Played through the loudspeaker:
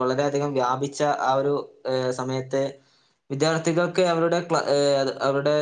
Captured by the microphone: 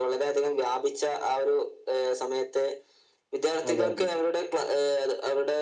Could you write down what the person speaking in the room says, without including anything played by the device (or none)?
അതെ അതെ